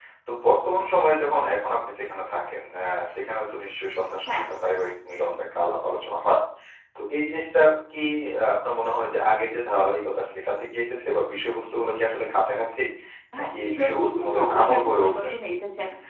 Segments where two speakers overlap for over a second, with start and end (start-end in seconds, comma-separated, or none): 13.4-15.3